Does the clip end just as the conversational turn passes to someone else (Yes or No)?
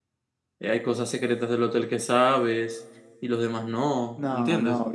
Yes